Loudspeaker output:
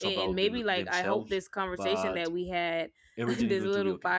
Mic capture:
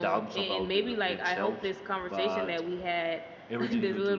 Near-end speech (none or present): none